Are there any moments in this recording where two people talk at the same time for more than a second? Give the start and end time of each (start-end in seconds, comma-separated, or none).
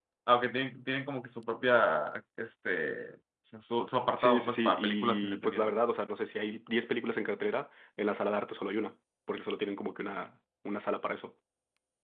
4.2-5.8